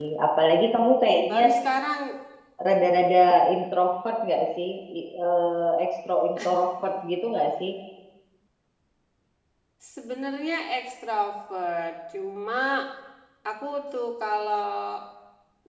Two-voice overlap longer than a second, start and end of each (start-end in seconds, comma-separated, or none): none